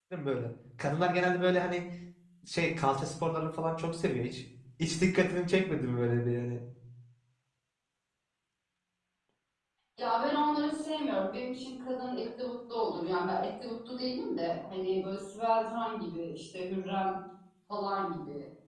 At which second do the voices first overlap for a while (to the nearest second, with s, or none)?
none